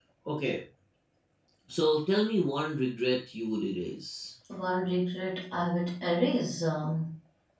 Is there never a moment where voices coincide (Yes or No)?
Yes